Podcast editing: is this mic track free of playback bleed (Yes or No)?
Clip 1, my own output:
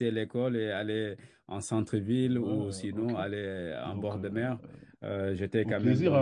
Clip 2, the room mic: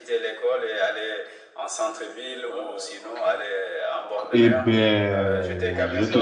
No